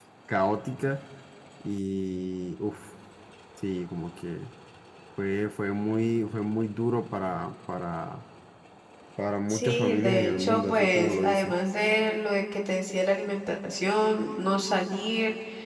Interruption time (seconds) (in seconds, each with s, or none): 9.5 s